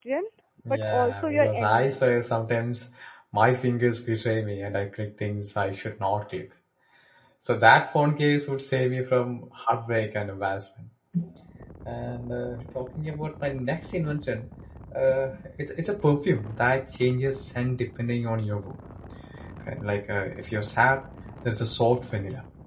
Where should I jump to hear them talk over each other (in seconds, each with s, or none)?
0.7 s